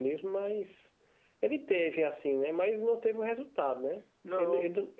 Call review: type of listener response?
listening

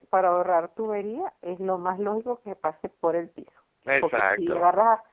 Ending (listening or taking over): listening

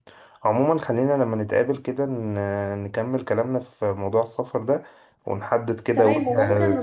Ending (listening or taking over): taking over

